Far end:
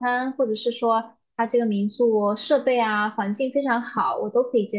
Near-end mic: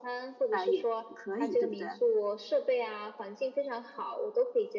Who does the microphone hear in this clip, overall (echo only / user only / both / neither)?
both